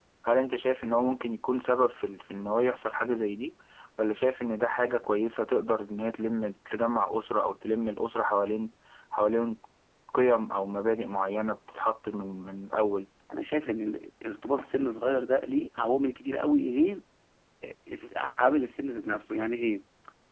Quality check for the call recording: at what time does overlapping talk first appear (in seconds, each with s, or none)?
none